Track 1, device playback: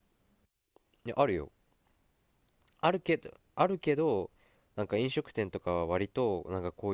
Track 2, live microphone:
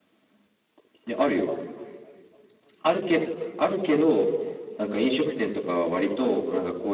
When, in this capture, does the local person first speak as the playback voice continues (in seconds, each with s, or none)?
none